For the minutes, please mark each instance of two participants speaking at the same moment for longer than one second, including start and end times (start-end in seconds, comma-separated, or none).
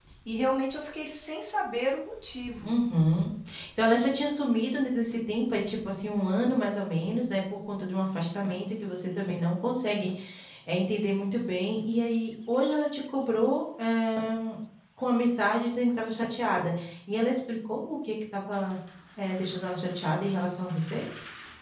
none